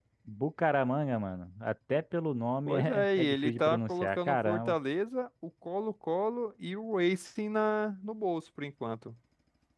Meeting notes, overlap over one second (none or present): present